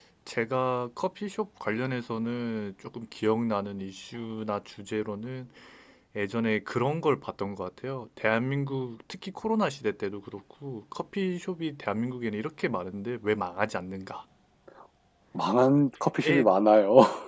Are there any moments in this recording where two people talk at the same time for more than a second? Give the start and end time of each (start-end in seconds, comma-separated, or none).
none